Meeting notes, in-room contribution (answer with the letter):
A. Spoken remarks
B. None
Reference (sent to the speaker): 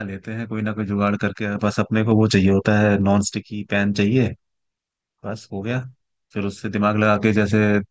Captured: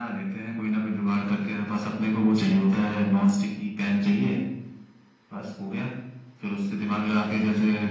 B